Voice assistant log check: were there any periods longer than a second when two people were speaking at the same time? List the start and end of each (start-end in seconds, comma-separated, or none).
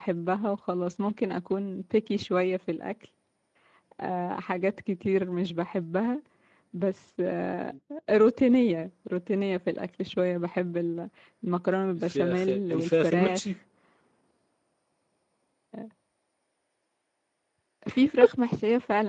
12.1-13.5